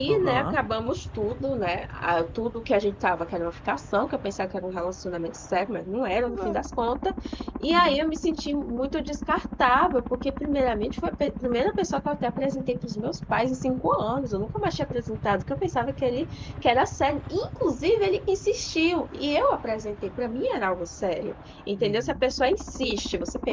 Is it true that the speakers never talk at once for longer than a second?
Yes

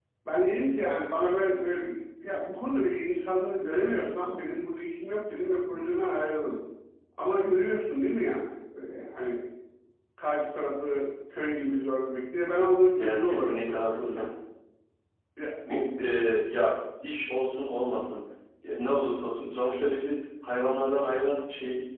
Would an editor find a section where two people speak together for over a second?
Yes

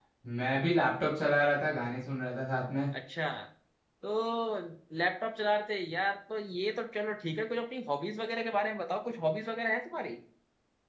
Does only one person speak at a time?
Yes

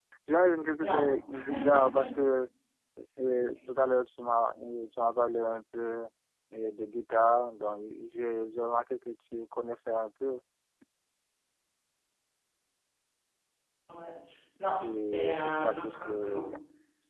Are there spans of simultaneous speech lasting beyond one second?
Yes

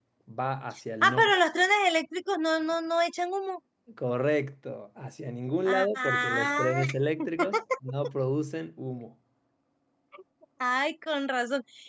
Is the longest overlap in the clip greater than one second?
Yes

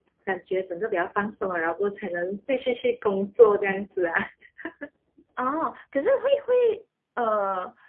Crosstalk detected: No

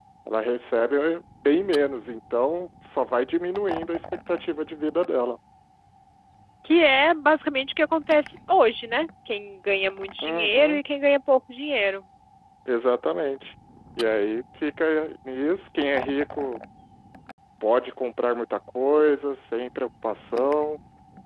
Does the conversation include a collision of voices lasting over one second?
No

